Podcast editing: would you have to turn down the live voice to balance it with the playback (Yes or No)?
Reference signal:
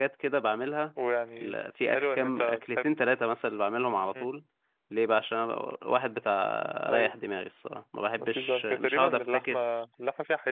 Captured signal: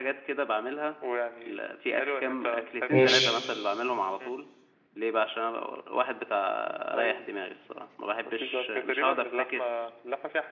Yes